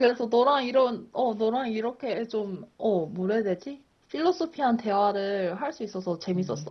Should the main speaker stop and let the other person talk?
Yes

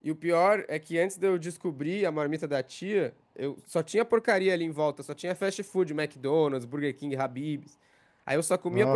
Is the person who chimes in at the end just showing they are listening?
Yes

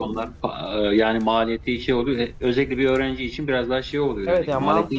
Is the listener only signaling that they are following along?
No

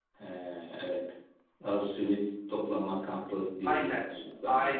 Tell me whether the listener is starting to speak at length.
Yes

